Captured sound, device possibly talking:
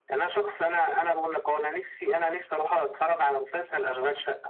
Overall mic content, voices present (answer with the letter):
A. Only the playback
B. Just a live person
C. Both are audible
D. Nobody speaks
A